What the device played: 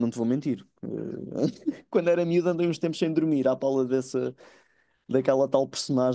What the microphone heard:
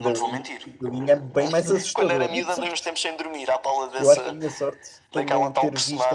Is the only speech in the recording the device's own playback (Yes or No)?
No